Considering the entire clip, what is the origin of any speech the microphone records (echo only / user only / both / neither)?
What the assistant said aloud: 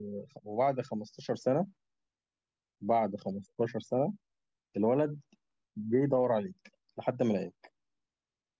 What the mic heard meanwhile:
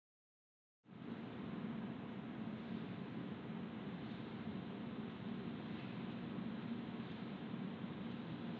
neither